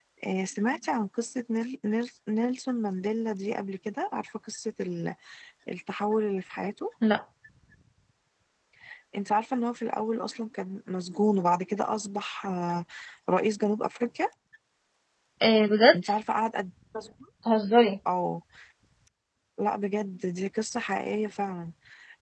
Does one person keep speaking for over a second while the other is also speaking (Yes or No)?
No